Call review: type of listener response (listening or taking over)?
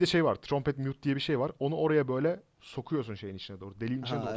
listening